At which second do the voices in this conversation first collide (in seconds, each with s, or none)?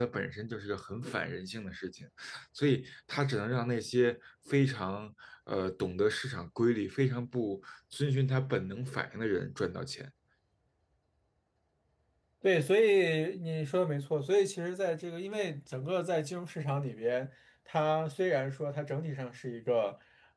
none